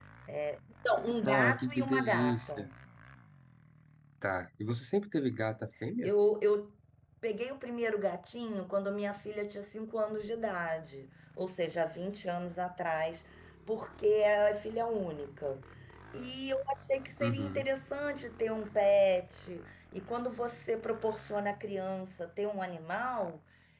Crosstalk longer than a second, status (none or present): present